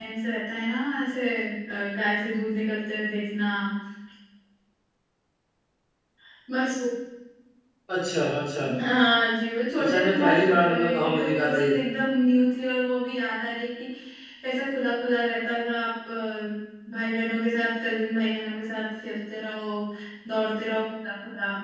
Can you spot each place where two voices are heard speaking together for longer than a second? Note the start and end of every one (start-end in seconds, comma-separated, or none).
9.8-11.7